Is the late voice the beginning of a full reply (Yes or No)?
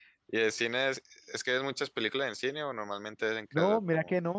Yes